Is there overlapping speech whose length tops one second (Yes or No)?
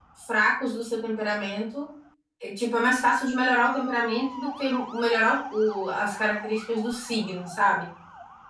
No